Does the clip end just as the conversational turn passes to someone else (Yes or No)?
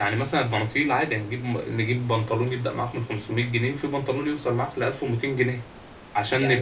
No